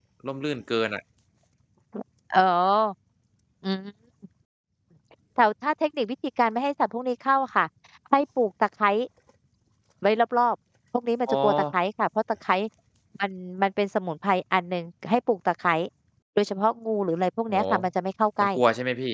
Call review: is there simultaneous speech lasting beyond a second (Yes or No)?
No